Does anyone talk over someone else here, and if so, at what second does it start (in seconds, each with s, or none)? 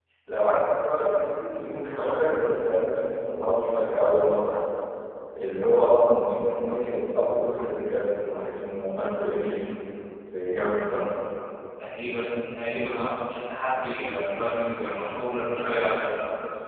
none